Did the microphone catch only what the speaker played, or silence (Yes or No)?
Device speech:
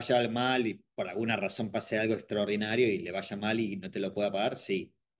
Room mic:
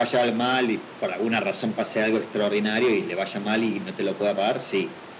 Yes